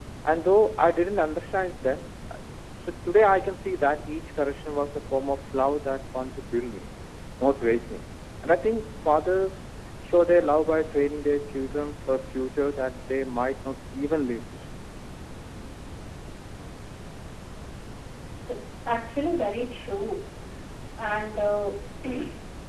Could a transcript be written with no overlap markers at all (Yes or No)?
Yes